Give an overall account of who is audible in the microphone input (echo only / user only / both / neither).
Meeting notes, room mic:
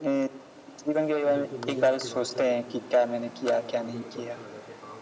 both